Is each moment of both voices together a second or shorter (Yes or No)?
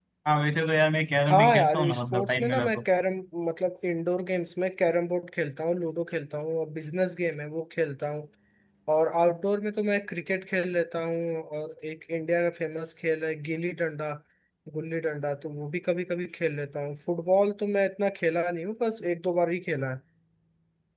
No